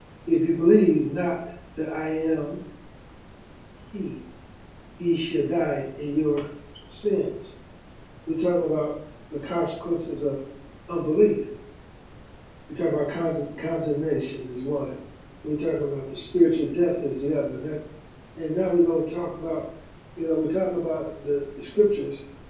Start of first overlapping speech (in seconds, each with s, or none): none